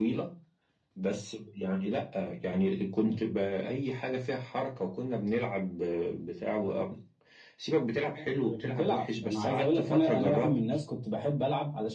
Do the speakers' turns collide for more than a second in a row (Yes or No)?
Yes